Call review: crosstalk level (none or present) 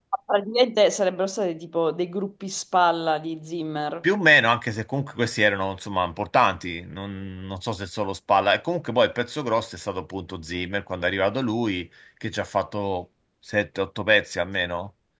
none